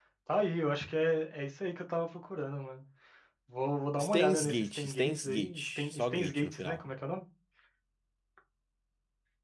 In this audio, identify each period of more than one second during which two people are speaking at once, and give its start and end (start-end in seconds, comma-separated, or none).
4.0-6.8